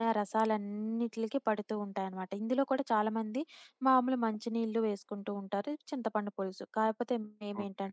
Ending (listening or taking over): listening